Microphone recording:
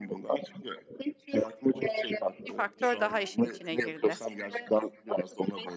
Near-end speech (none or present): present